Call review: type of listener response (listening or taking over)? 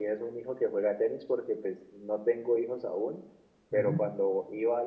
listening